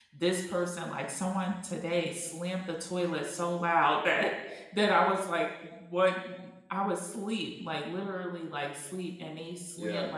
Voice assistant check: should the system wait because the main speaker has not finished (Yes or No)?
Yes